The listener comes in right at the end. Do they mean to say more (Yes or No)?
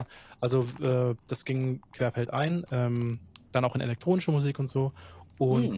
No